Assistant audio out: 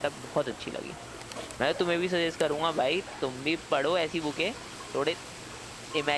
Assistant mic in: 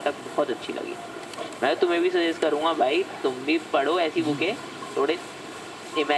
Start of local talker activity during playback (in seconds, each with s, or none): 4.2 s